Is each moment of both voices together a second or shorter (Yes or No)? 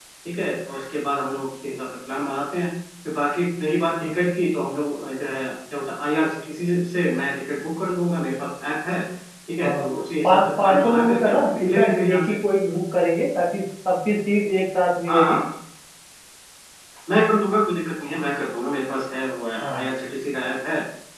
No